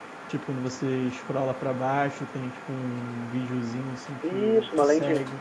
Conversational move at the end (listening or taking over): taking over